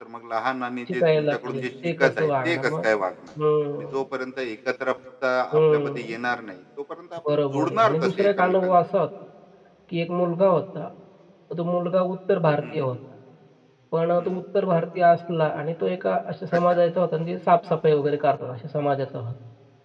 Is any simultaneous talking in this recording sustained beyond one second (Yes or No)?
Yes